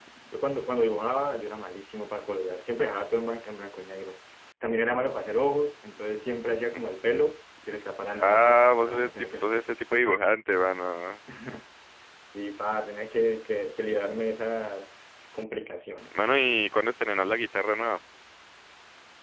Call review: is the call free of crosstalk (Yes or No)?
No